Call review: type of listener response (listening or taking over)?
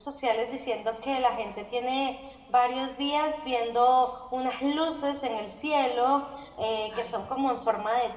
listening